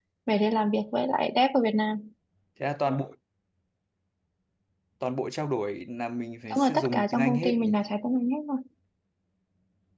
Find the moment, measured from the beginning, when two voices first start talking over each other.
6.5 s

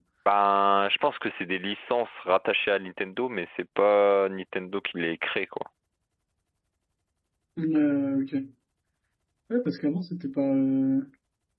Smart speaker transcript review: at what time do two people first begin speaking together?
none

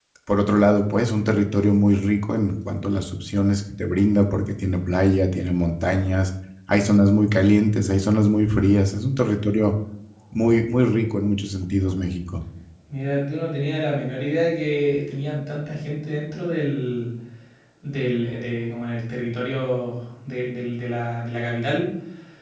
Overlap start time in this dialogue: none

